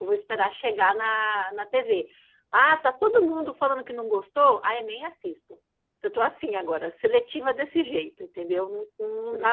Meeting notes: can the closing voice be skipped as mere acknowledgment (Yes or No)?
No